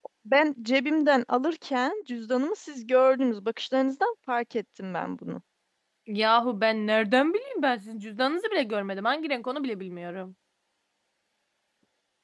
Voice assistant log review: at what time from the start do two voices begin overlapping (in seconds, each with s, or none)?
none